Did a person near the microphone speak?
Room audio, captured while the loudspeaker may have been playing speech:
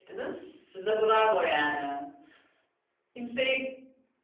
Yes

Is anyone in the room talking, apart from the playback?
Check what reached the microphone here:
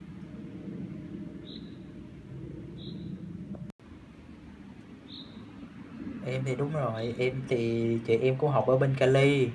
Yes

